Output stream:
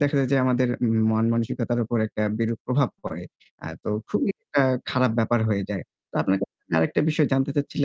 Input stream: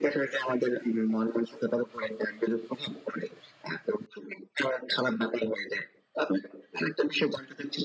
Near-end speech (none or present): none